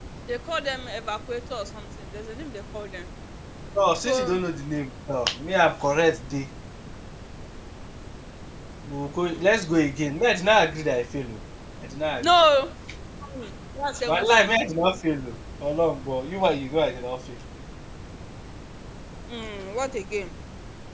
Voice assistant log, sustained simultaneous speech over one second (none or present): none